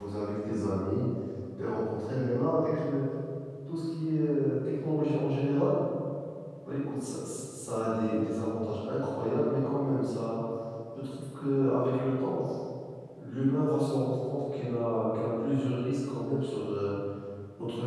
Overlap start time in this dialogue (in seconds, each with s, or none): none